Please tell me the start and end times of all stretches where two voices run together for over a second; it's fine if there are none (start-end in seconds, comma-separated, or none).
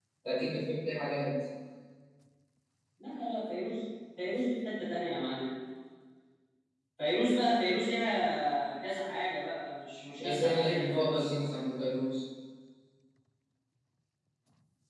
10.2-11.5